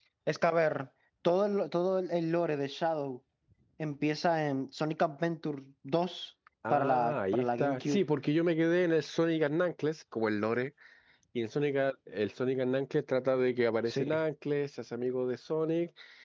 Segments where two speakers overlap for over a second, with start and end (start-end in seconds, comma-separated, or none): 6.7-8.0